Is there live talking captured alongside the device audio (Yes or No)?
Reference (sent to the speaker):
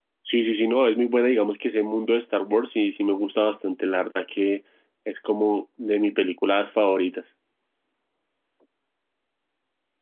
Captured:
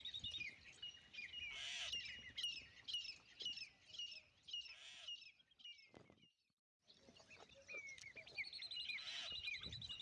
No